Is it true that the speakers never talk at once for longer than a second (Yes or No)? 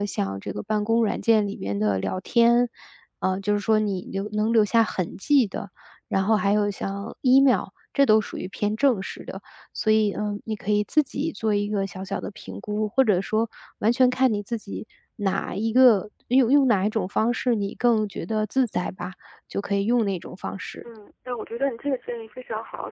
Yes